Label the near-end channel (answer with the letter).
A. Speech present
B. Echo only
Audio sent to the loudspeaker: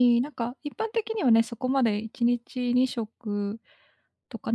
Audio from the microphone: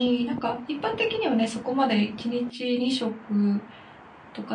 B